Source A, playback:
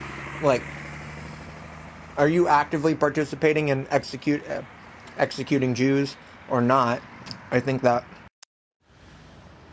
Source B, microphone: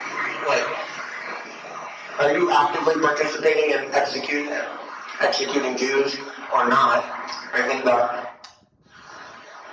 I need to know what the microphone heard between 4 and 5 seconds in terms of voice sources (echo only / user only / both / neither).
echo only